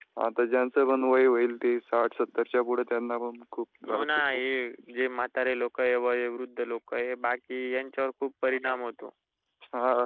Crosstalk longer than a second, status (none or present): none